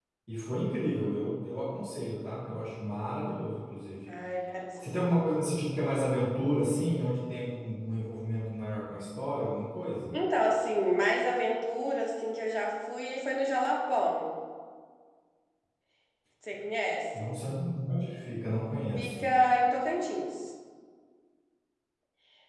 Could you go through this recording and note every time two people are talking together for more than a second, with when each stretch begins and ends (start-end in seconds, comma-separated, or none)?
none